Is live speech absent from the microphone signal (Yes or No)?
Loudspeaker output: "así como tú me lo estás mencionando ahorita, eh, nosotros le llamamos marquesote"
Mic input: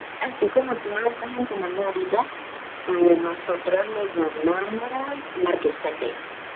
Yes